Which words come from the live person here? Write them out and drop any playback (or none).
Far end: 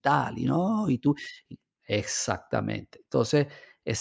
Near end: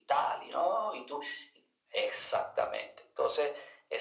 none